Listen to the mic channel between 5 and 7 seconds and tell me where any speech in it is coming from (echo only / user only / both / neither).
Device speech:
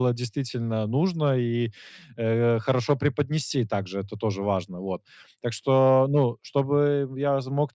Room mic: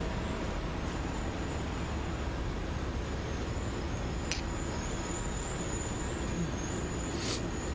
neither